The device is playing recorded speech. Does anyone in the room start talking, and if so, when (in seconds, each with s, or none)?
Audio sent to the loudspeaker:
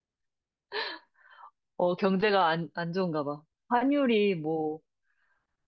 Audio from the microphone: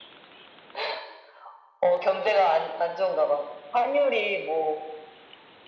none